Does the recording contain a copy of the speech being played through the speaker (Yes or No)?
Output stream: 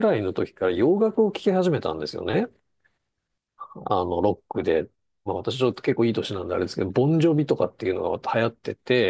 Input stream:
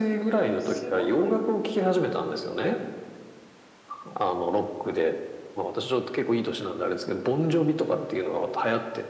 Yes